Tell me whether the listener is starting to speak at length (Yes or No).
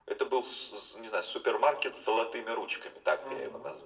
Yes